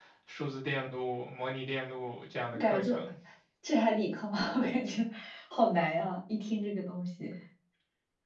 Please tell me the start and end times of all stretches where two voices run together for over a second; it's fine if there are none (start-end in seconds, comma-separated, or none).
none